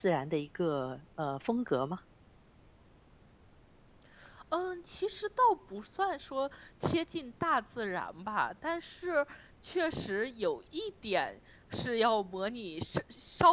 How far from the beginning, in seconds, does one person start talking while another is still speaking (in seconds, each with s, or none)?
none